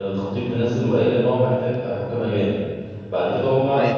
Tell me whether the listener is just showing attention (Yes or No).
Yes